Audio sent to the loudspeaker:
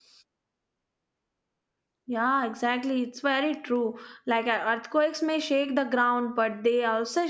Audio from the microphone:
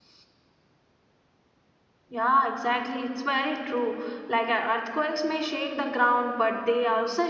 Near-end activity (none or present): none